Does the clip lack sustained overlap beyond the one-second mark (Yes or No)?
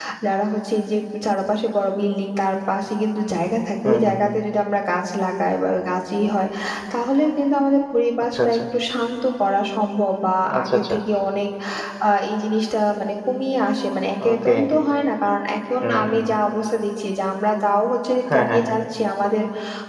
Yes